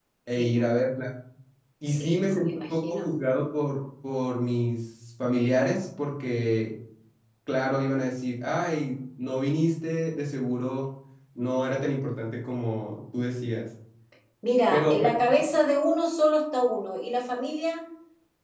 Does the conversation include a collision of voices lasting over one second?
Yes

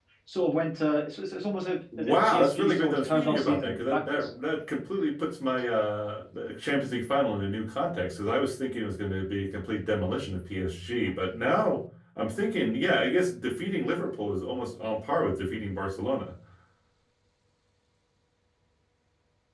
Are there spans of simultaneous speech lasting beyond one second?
Yes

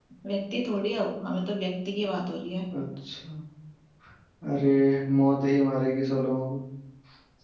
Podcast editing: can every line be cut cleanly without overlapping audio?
Yes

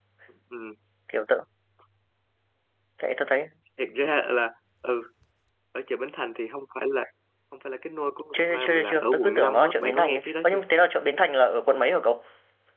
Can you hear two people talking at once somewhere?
Yes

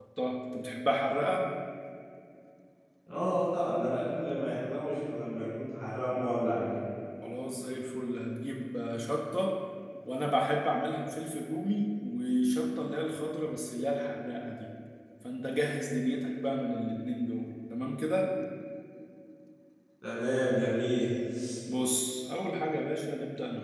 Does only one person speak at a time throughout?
Yes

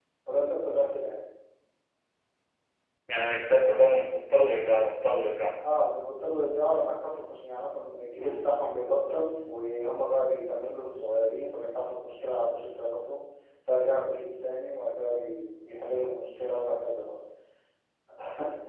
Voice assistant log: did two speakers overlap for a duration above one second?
No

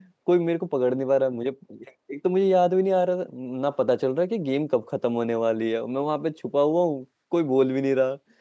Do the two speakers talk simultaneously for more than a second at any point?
No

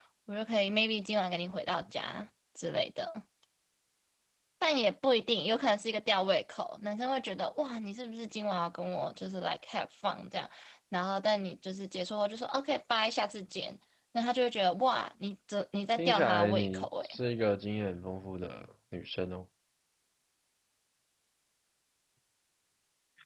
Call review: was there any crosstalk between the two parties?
Yes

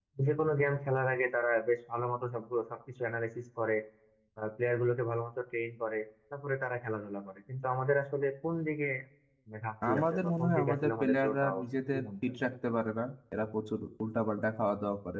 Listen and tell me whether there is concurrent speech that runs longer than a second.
Yes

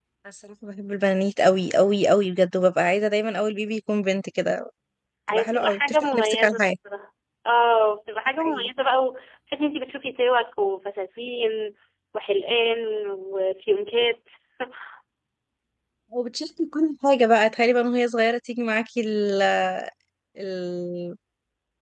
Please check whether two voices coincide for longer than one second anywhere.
Yes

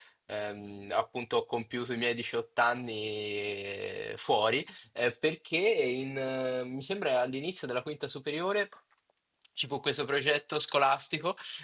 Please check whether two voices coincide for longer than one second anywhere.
No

